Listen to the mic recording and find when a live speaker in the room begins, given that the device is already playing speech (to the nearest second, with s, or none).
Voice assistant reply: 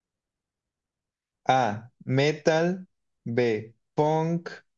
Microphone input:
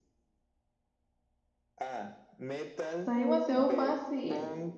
3 s